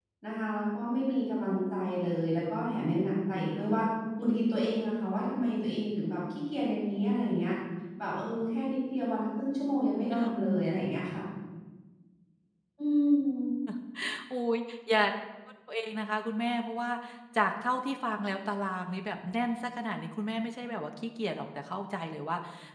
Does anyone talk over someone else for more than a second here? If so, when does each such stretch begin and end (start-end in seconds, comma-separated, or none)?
none